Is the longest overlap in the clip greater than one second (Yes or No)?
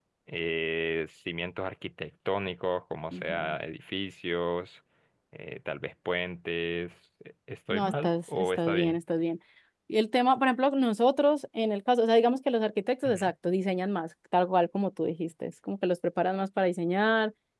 Yes